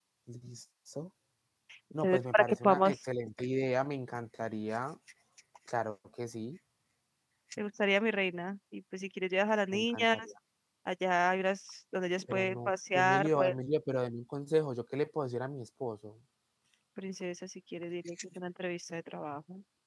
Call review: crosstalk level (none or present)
present